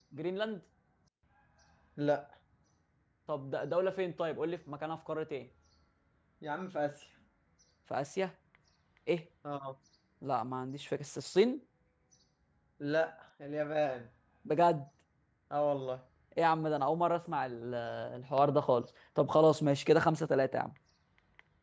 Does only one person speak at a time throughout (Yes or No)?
Yes